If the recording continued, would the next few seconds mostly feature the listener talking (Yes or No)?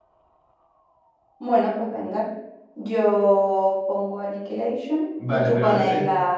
Yes